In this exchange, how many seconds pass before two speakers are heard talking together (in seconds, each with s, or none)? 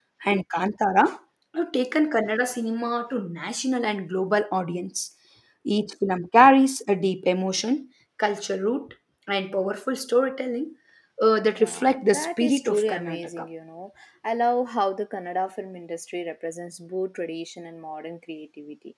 11.6 s